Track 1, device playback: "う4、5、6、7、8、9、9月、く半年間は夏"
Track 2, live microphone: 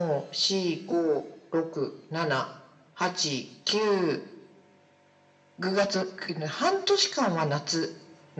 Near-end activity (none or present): none